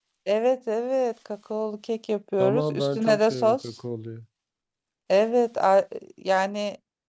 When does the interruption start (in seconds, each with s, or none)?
2.4 s